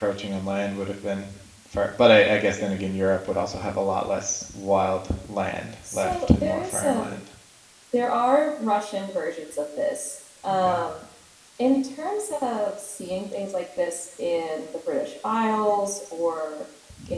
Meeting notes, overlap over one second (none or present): present